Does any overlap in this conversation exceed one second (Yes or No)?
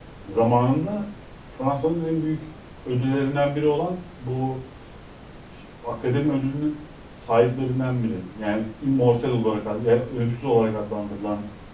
No